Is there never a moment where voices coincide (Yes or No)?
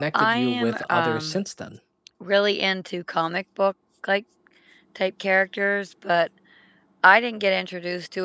No